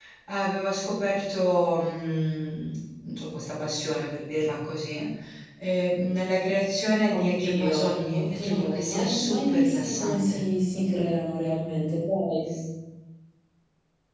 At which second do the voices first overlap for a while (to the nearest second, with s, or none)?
7 s